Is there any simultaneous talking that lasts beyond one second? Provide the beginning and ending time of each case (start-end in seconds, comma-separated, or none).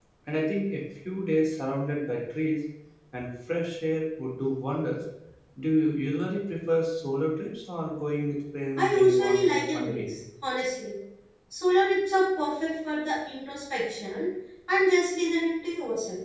8.8-10.1